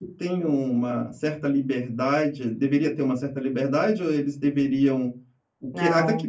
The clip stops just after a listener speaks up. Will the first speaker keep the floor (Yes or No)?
Yes